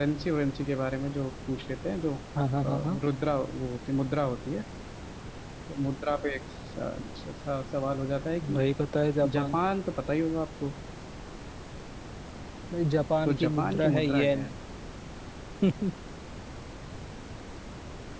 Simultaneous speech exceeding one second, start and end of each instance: 13.2-14.5

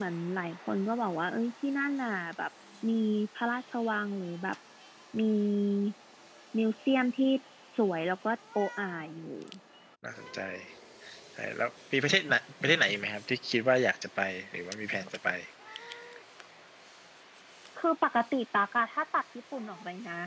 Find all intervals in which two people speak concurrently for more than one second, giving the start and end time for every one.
none

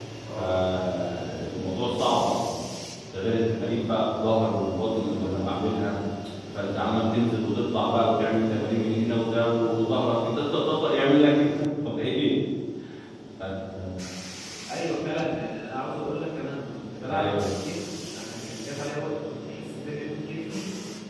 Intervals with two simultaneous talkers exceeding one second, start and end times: none

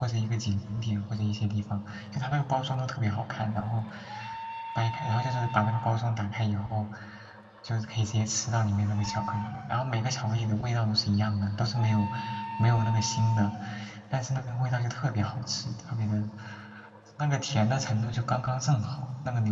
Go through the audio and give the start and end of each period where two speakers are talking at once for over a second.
none

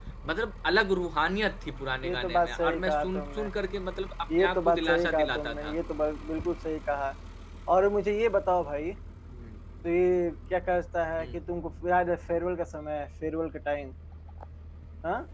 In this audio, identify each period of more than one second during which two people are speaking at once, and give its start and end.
2.0-3.4, 4.4-5.7

